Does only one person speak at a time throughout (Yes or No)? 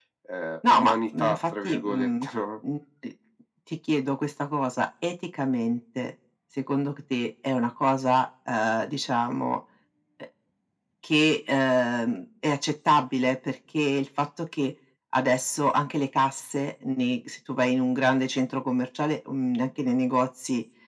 No